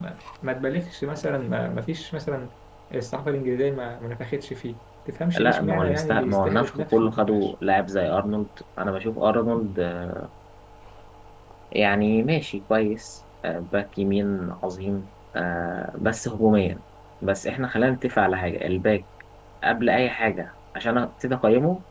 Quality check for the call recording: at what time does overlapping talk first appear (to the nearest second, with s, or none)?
5 s